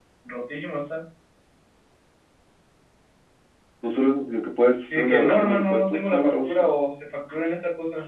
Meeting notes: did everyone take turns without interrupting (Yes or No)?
No